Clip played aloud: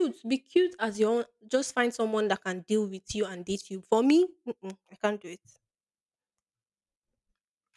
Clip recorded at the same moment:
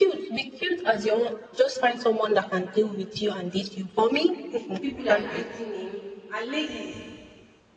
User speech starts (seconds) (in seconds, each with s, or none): 4.5 s